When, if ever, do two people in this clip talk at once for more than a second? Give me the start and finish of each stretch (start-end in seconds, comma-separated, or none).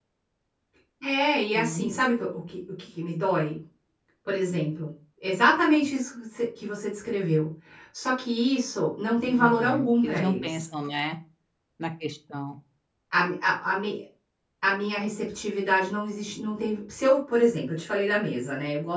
9.3-10.7